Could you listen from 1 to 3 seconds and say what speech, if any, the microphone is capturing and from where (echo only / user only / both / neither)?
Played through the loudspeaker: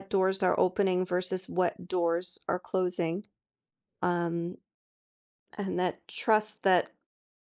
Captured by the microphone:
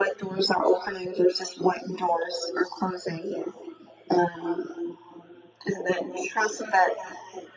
echo only